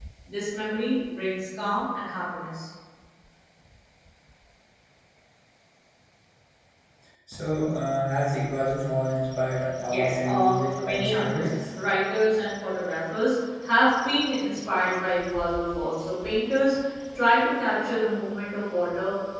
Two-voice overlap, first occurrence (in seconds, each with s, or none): 9.9 s